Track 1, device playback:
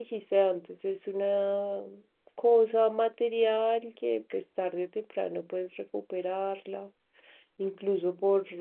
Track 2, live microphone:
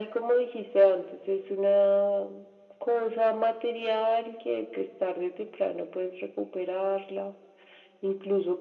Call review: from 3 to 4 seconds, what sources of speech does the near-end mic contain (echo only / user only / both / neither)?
echo only